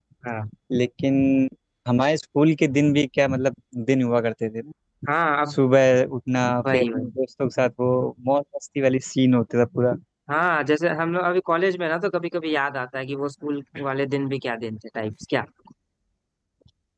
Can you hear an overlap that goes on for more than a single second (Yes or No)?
No